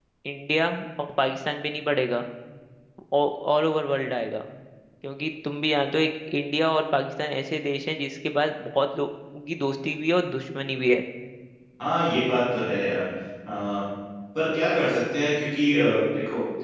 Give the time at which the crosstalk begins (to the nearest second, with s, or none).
none